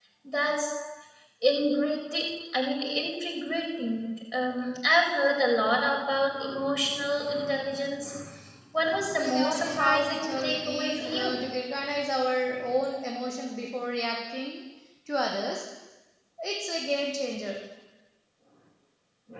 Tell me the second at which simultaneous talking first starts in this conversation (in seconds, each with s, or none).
9.2 s